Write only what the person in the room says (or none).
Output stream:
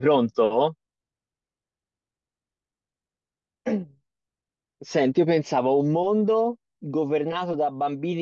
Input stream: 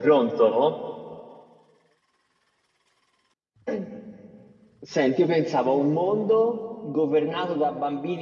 none